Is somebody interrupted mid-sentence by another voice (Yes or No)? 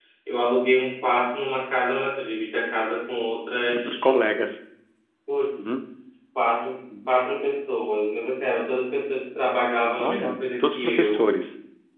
Yes